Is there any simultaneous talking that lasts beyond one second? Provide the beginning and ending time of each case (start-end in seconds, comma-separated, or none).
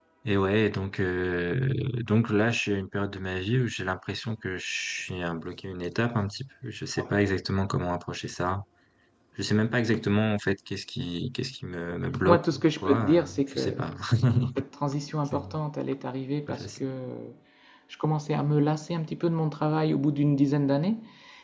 12.3-13.8